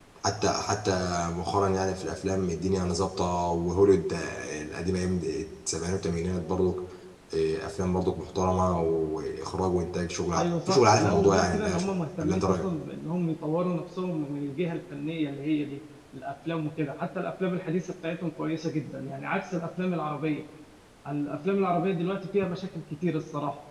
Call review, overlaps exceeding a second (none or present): present